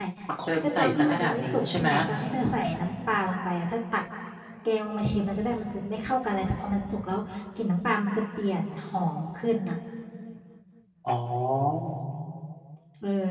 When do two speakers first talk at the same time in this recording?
0.5 s

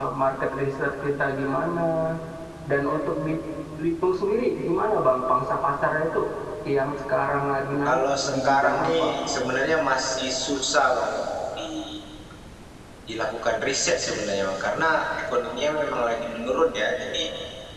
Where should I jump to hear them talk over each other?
7.8 s

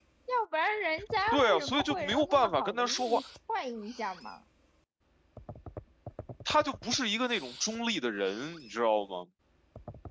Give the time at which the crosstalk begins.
1.3 s

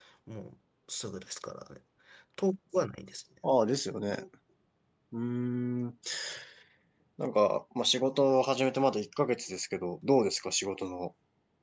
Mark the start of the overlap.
none

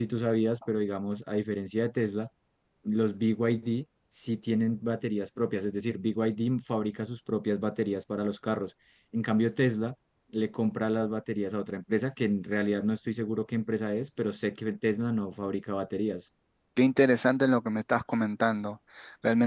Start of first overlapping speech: none

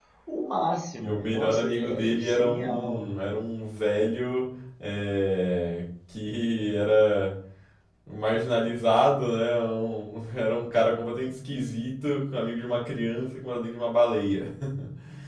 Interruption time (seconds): 1.0 s

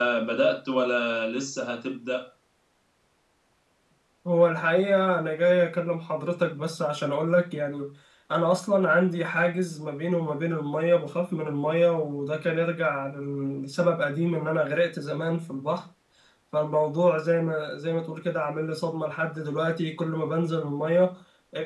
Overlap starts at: none

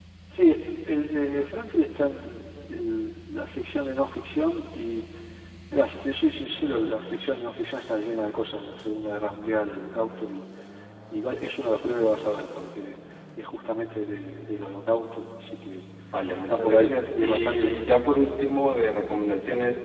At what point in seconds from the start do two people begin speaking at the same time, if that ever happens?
16.3 s

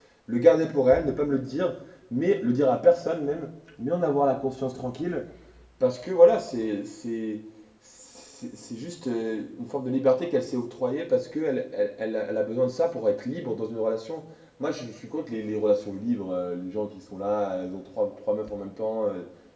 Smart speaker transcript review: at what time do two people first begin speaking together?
none

